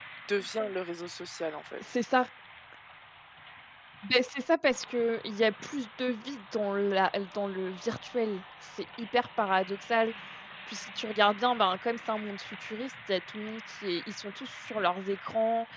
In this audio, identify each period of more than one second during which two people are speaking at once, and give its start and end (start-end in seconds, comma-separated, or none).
none